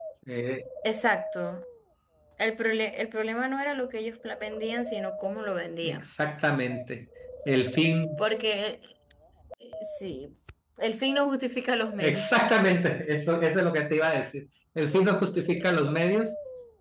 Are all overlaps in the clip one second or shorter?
Yes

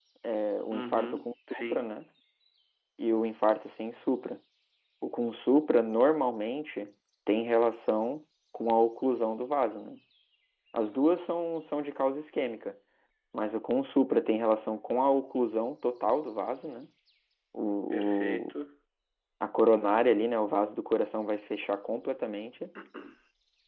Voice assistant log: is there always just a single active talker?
No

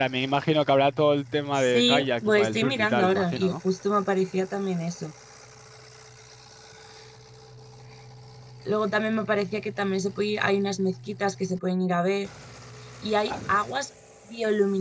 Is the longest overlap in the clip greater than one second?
Yes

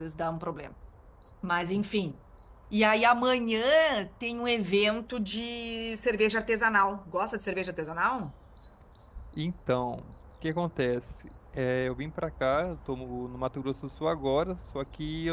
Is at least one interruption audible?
No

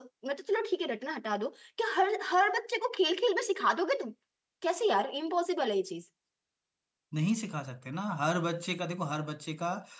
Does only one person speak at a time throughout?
Yes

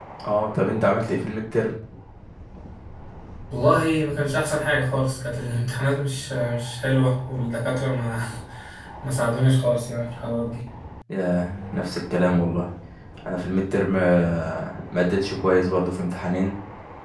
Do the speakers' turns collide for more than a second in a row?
No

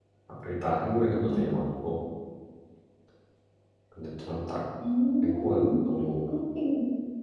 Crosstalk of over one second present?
No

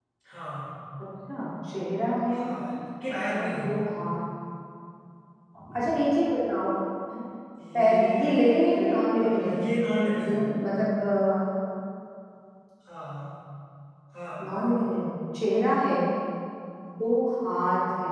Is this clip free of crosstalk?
No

